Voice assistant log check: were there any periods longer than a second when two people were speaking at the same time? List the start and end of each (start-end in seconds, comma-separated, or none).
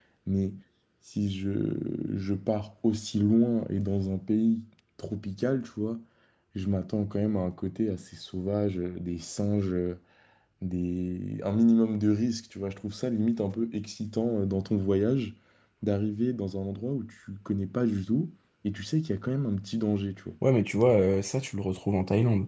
none